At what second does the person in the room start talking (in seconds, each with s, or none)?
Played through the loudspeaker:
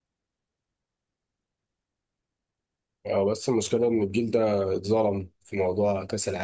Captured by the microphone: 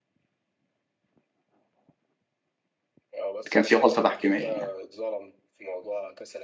3.5 s